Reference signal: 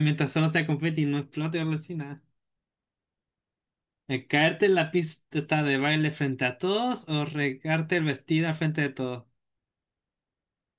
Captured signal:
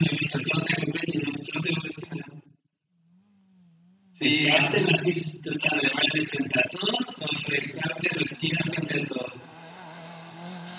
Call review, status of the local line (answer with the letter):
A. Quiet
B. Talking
B